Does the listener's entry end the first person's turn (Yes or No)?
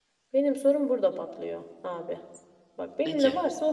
No